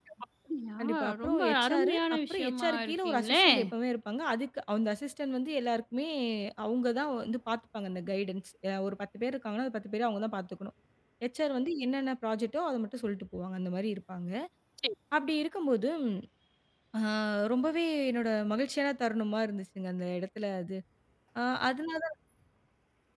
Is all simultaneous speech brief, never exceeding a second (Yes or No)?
No